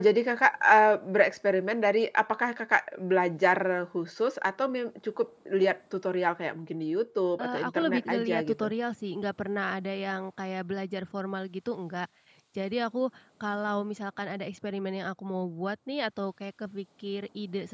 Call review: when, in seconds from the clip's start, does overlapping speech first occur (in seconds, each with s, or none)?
7.4 s